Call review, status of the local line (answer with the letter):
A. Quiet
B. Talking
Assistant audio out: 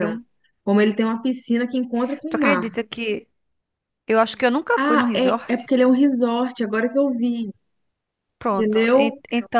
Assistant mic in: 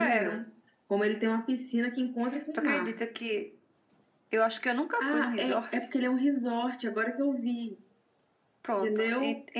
A